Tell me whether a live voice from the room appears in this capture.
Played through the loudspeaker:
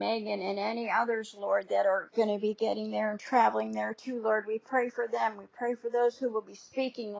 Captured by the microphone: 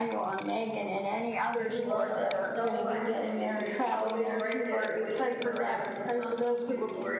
Yes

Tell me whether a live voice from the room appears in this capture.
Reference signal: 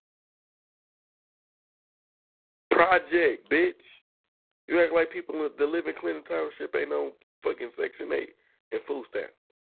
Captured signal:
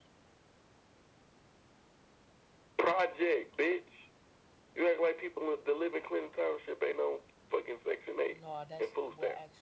Yes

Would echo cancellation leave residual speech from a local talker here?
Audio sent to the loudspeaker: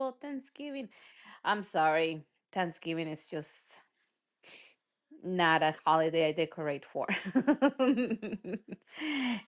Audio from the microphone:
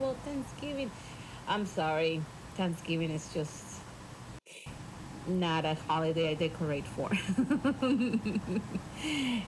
No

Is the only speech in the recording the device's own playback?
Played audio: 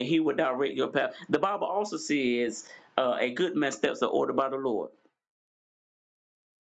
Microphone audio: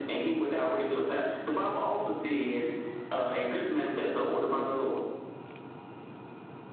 Yes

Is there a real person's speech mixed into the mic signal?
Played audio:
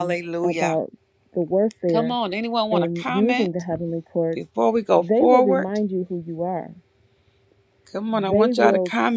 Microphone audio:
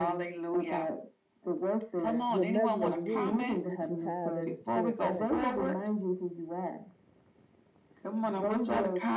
Yes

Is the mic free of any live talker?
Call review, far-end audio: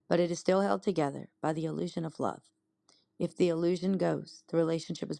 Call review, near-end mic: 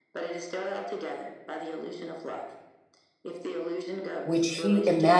No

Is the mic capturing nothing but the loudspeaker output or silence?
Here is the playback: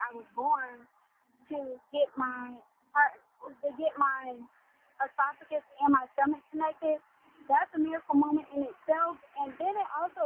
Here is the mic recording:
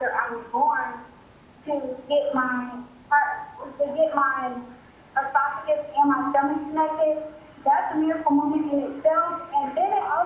Yes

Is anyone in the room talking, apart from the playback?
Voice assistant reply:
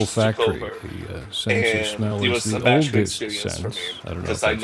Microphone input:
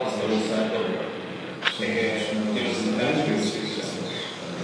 No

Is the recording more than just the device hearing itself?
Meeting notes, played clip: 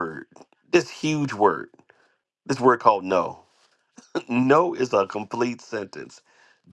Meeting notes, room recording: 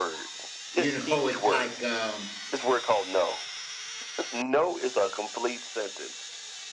Yes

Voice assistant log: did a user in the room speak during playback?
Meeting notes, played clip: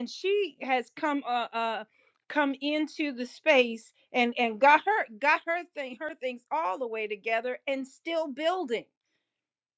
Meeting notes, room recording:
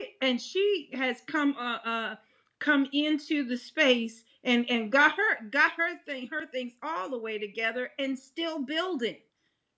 No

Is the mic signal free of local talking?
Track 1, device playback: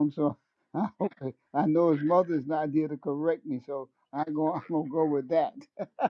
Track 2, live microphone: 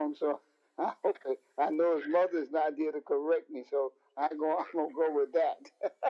Yes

